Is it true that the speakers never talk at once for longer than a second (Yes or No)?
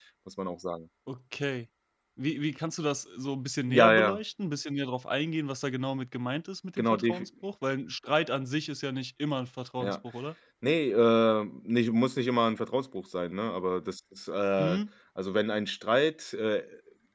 Yes